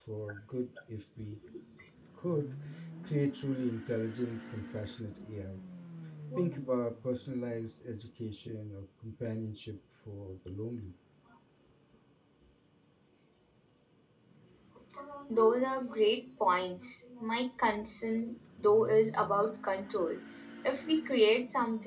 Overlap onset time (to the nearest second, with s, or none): none